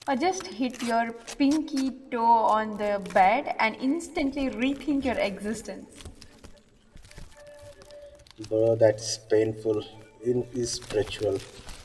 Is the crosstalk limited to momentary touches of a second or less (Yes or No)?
Yes